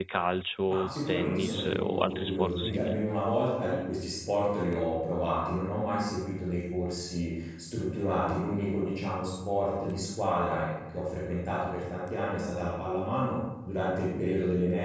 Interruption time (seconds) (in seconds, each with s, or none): 0.7 s